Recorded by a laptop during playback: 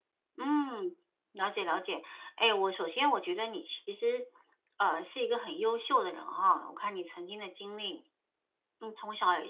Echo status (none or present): none